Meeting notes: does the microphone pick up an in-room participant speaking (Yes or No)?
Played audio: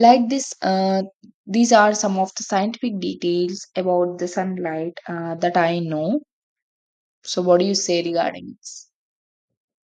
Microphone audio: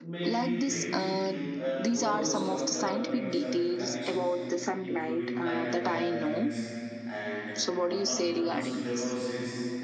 Yes